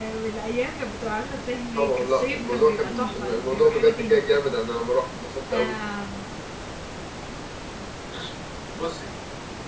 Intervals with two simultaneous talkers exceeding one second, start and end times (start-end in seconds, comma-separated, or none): 1.8-4.4